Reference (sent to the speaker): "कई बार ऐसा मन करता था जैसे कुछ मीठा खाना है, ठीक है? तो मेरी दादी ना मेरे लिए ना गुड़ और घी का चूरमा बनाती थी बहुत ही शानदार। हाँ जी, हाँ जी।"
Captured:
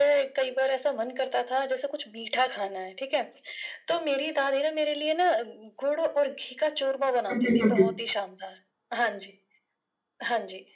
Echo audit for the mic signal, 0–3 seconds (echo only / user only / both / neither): echo only